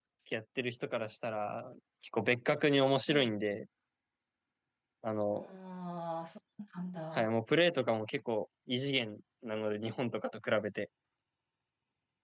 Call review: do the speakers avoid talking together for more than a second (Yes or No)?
Yes